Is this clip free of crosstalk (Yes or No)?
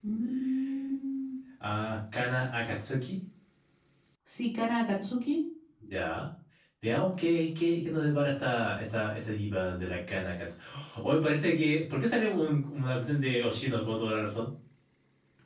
Yes